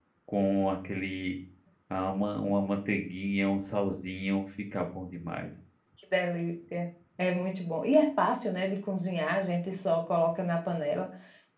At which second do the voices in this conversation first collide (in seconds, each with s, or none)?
none